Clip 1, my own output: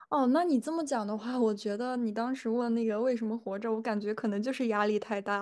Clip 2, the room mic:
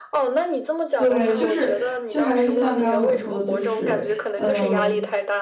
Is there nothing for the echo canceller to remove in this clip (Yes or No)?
No